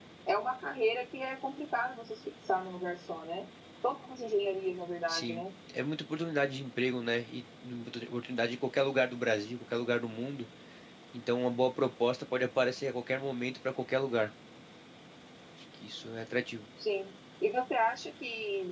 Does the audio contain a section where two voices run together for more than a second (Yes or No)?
No